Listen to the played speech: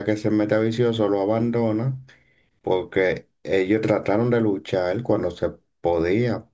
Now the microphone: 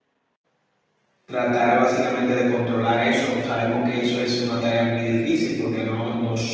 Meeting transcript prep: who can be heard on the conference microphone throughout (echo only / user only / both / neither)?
user only